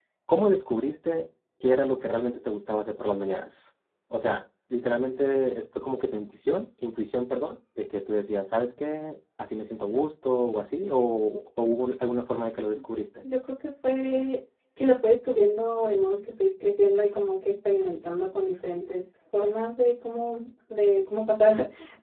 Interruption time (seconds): none

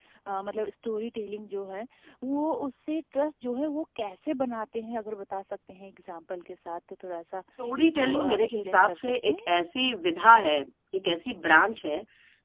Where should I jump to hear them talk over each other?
7.6 s

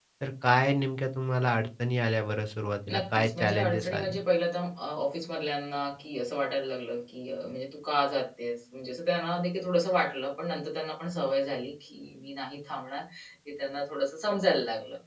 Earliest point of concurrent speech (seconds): 2.9 s

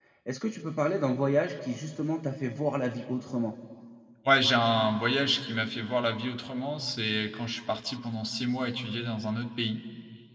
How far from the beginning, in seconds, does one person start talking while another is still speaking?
none

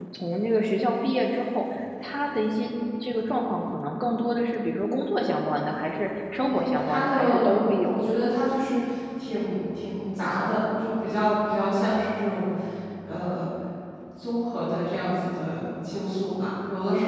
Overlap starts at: 6.4 s

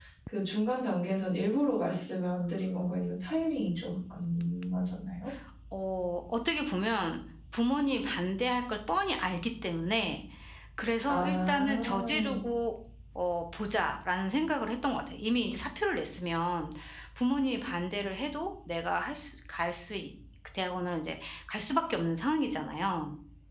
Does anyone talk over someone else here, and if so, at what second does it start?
11.1 s

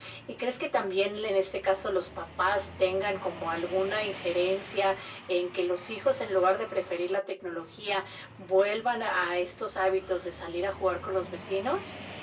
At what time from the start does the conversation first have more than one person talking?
none

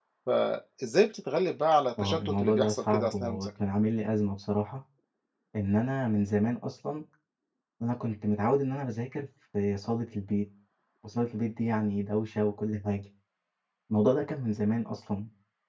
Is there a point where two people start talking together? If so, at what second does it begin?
2.0 s

